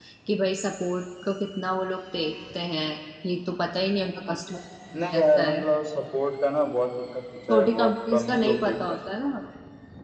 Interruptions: present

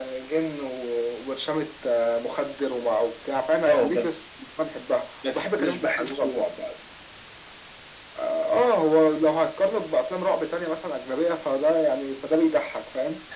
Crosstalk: present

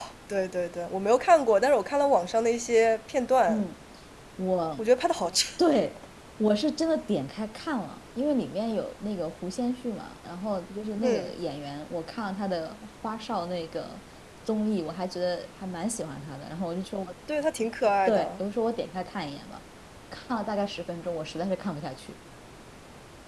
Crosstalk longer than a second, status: none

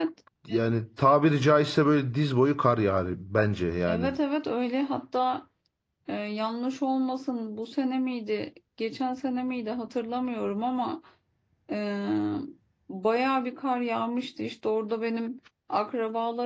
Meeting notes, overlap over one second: none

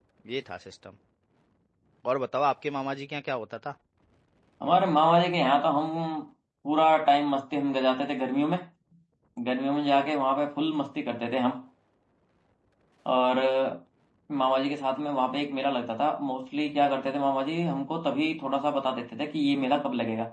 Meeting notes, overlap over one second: none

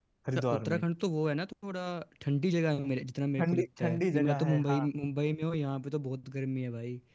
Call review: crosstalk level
present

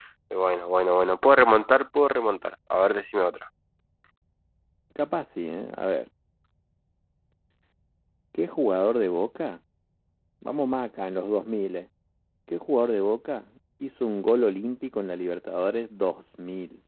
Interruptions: none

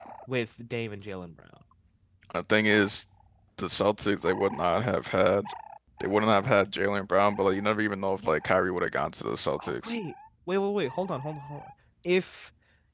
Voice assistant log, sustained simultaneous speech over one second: none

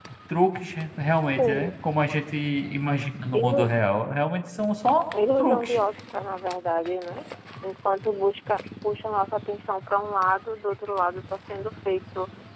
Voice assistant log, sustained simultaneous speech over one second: none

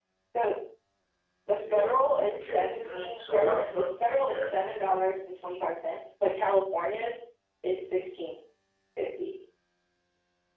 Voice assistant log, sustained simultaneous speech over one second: present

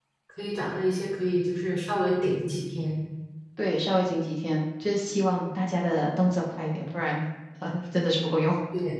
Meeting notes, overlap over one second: none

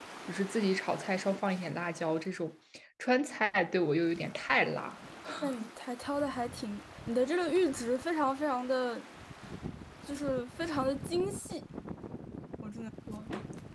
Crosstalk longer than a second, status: none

